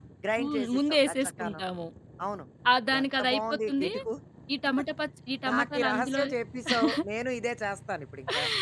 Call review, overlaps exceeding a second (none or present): present